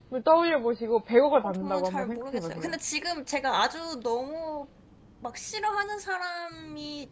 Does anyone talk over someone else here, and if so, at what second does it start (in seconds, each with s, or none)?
1.4 s